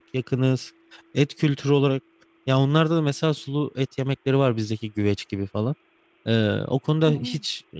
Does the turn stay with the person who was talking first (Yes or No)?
Yes